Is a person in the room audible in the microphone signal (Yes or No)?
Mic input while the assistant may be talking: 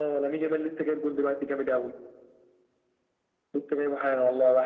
No